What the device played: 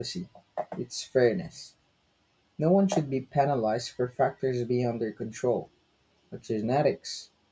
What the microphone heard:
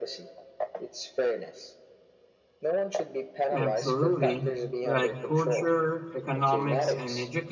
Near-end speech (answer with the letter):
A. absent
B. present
B